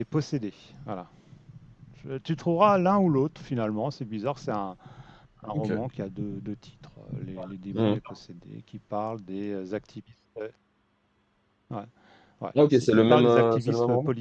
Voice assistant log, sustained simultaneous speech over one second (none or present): present